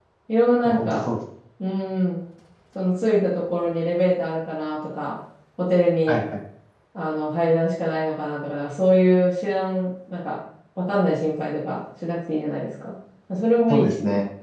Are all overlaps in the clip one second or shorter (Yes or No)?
Yes